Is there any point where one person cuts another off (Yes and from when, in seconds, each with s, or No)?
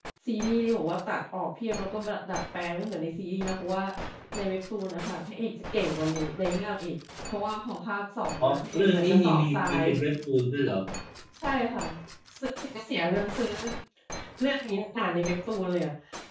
Yes, from 8.4 s